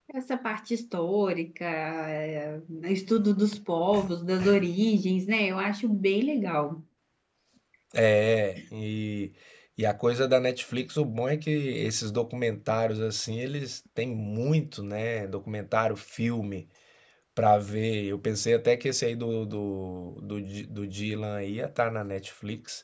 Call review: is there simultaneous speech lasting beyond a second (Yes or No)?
No